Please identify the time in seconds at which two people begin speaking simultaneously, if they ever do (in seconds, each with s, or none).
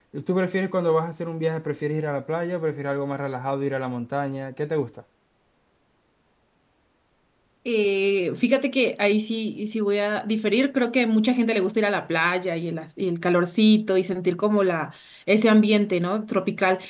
none